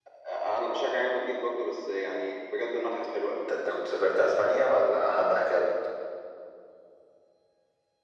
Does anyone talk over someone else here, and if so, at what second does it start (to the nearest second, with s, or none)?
none